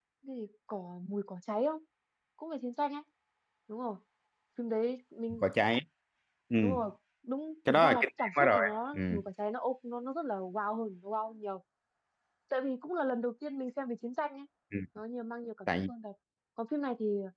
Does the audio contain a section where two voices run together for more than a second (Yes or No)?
Yes